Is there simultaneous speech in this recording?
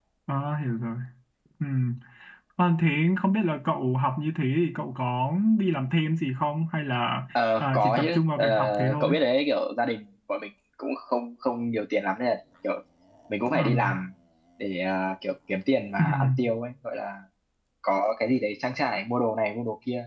Yes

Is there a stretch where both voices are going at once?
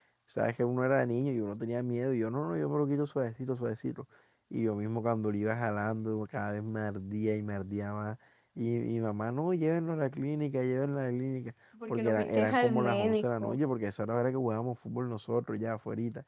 Yes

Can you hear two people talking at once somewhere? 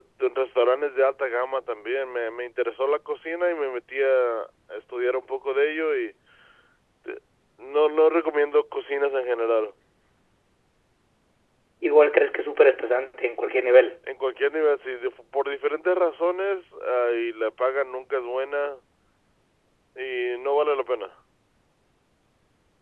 No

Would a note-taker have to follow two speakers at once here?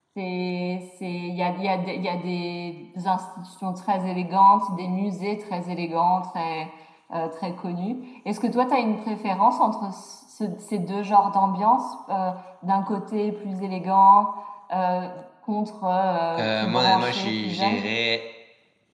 Yes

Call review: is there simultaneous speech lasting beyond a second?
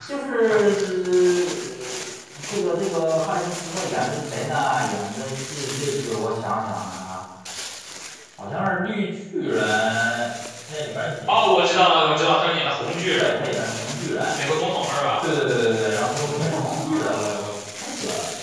No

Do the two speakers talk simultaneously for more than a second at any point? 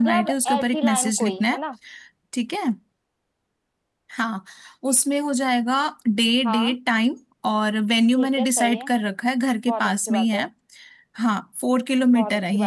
Yes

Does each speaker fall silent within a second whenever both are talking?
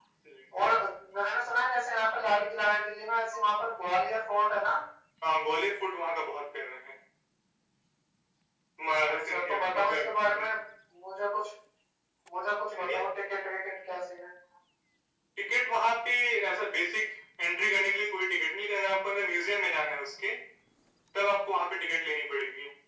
No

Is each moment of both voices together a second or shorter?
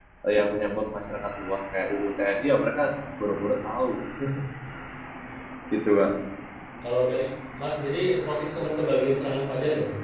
Yes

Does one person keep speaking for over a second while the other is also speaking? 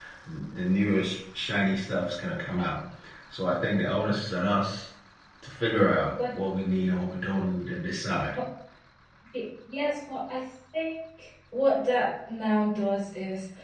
No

